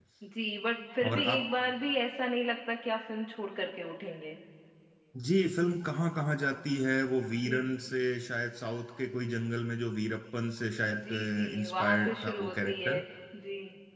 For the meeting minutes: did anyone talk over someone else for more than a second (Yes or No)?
Yes